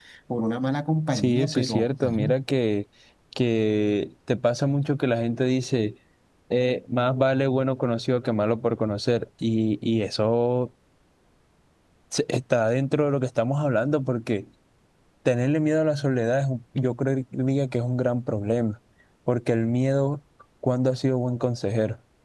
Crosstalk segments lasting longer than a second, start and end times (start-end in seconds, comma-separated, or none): 1.1-2.4